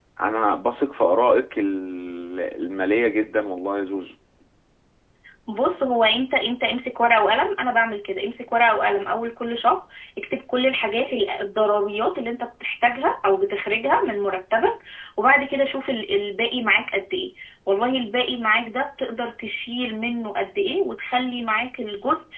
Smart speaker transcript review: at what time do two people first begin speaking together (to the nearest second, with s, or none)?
none